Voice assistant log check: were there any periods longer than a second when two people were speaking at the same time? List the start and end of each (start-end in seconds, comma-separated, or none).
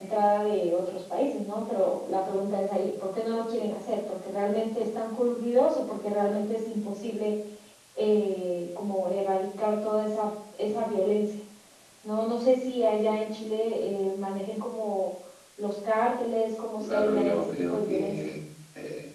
16.8-18.2